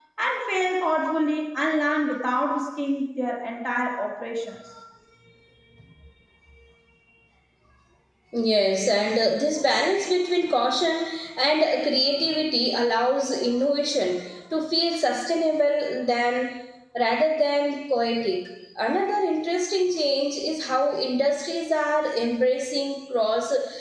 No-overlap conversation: Yes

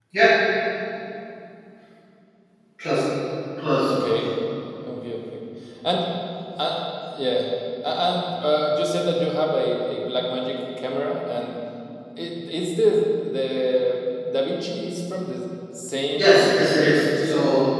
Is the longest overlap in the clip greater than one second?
Yes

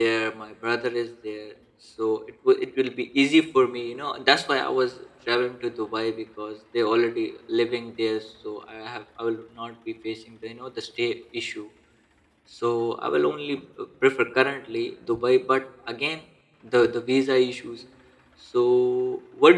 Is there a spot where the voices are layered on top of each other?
No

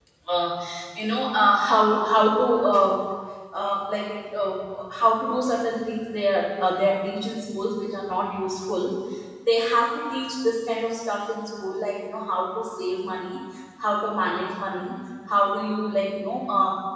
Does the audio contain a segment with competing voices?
No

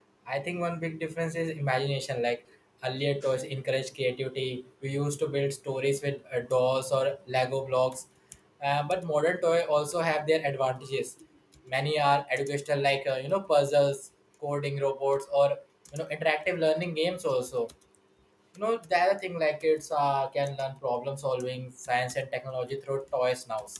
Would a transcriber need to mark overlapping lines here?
No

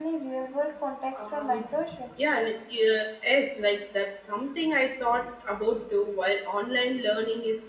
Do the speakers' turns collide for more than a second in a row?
No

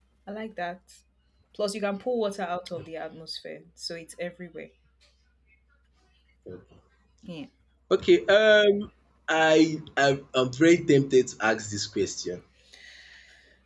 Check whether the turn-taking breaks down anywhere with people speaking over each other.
No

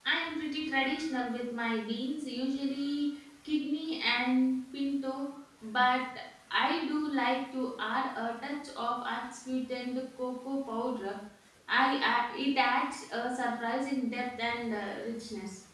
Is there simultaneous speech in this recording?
No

